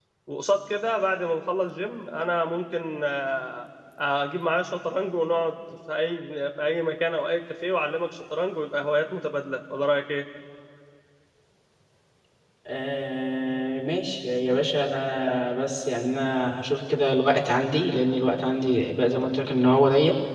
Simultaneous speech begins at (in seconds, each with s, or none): none